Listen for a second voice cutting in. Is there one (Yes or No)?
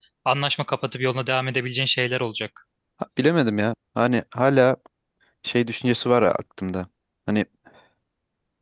No